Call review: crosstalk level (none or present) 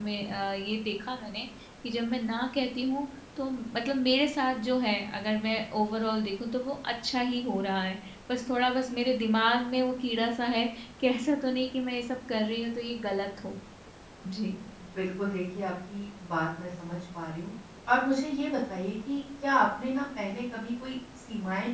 none